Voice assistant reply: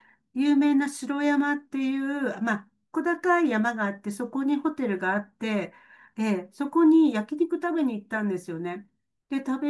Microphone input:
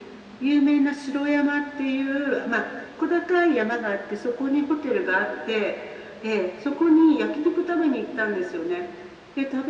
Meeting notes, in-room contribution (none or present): none